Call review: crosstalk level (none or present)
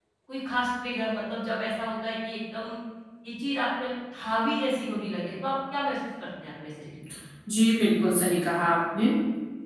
none